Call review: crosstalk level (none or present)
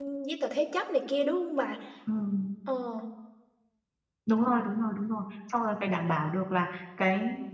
none